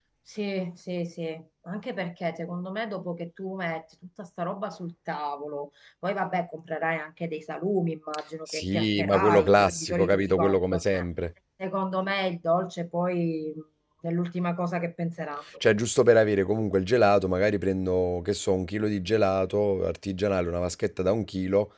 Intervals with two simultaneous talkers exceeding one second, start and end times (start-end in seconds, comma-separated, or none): 8.5-11.0